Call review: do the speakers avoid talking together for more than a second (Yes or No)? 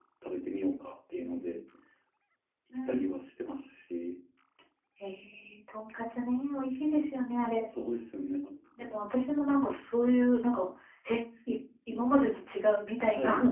Yes